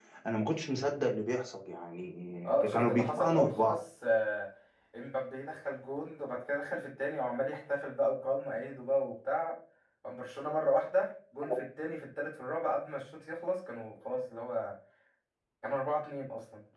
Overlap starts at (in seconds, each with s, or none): 2.5 s